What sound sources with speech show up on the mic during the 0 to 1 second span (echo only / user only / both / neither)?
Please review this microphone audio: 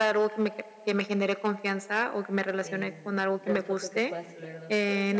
echo only